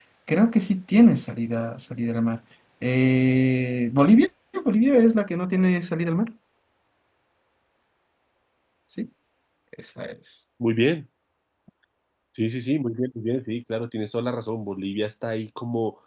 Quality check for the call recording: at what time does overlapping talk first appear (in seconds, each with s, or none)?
none